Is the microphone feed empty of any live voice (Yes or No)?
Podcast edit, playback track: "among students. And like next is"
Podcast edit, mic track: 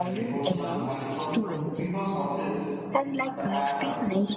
No